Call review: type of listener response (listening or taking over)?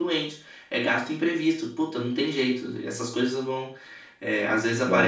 listening